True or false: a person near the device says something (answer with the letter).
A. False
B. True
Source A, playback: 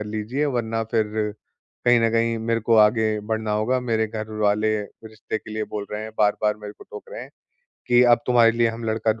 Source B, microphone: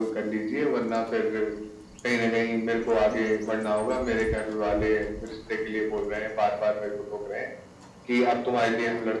A